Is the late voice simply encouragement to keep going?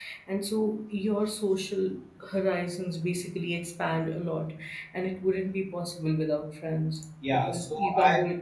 No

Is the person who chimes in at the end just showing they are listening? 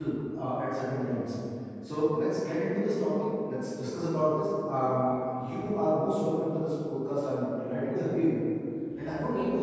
Yes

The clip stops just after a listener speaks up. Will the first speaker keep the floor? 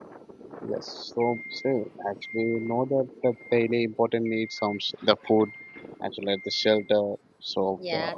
No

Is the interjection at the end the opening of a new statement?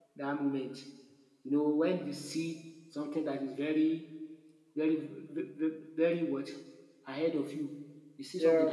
No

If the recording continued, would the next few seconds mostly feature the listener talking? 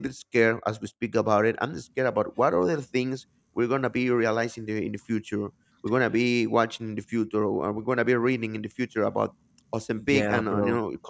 No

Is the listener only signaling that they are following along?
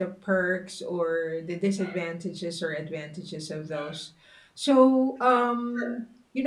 Yes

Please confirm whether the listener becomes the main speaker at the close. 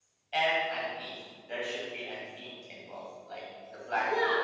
Yes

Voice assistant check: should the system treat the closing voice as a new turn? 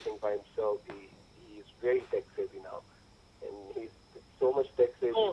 Yes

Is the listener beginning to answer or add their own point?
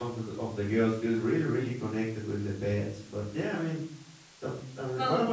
No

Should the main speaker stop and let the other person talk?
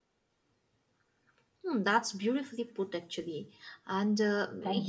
No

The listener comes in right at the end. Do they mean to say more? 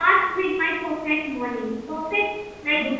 No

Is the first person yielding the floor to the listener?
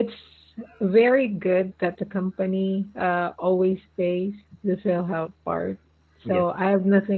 No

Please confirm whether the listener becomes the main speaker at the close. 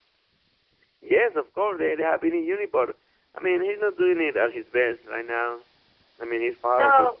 Yes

